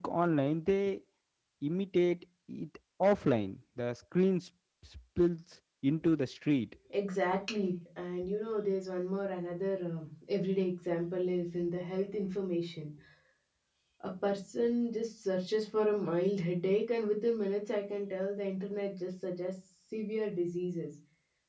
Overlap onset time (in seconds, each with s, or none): none